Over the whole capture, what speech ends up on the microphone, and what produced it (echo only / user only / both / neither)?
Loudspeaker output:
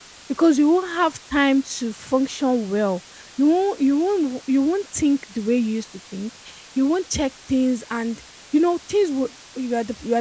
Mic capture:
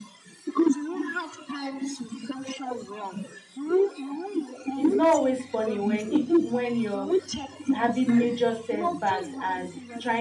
both